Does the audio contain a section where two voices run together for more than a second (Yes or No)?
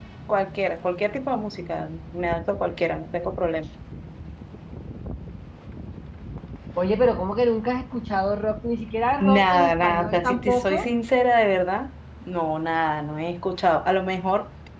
Yes